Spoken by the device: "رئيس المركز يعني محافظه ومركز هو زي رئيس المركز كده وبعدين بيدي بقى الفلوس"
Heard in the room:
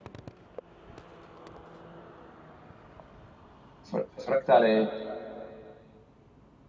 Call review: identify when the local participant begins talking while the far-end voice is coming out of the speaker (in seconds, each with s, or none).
3.9 s